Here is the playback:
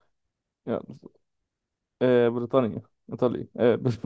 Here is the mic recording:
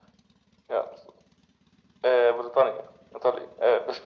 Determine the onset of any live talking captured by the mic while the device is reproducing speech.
none

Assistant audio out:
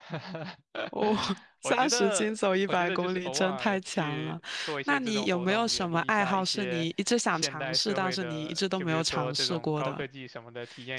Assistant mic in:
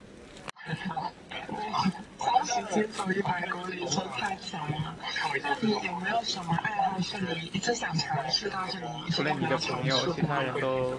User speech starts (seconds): 9.1 s

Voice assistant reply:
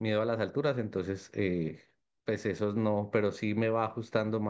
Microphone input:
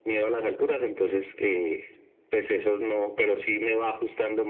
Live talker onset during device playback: none

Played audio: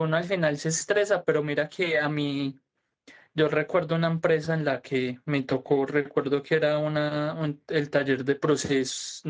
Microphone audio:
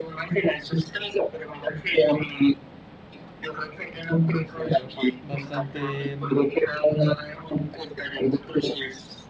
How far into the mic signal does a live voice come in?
4.2 s

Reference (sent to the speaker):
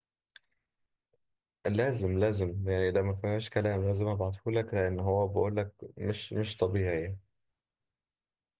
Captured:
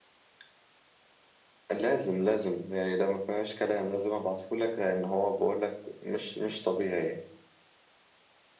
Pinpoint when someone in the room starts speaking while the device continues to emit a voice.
none

